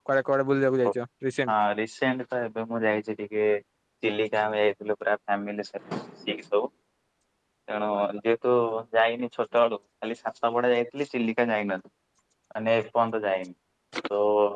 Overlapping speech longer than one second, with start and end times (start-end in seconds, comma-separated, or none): none